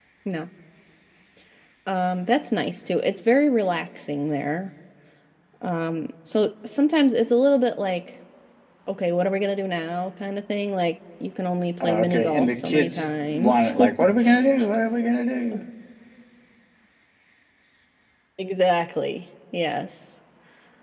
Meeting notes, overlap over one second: present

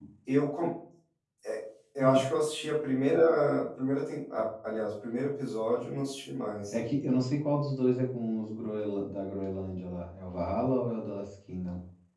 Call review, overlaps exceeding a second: none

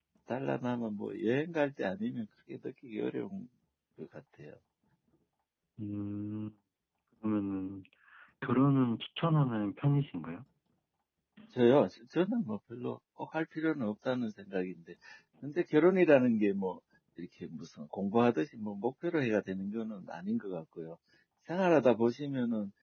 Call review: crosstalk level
none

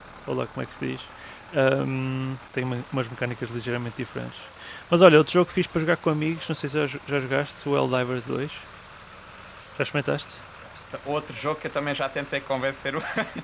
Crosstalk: none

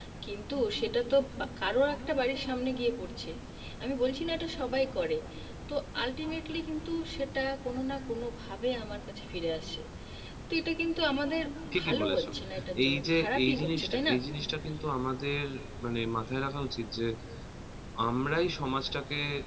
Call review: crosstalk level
present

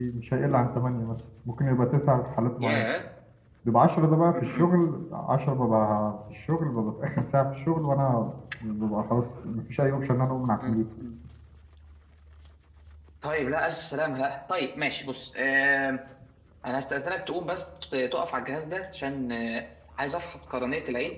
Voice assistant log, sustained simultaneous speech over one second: none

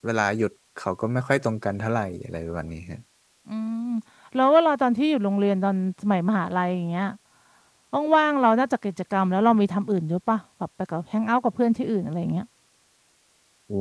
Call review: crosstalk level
none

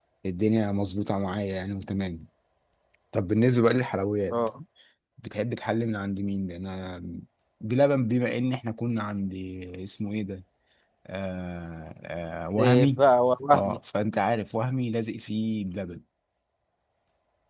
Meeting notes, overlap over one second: none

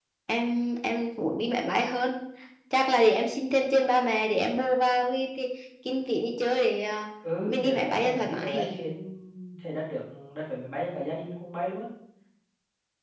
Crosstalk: present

